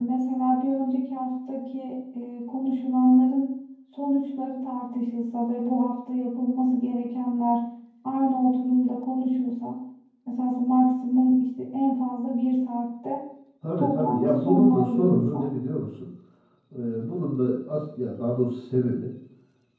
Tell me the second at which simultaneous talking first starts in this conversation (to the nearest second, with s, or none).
14 s